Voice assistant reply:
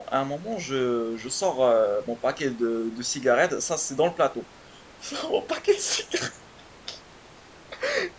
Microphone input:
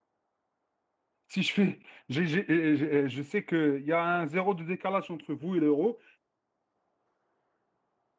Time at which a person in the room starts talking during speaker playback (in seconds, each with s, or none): 1.3 s